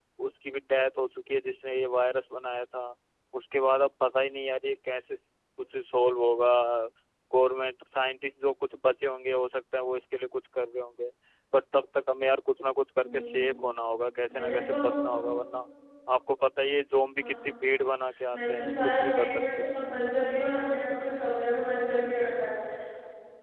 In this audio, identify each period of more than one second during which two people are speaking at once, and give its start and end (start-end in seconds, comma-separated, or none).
18.3-19.6